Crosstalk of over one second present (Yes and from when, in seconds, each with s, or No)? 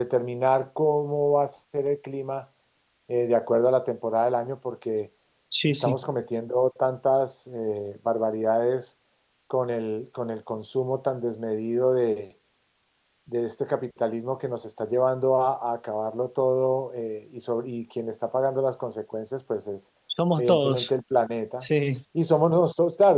No